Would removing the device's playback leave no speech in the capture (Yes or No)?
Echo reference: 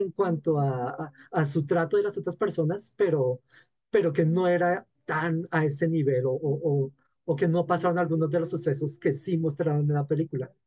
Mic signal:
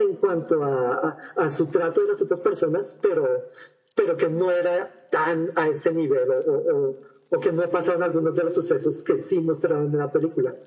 Yes